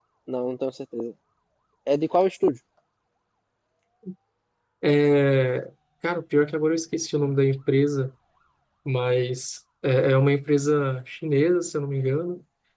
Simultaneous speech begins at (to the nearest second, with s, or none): none